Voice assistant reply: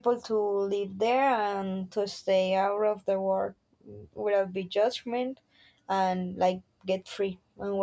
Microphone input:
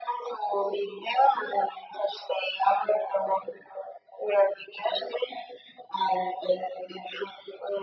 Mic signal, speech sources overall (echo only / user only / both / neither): echo only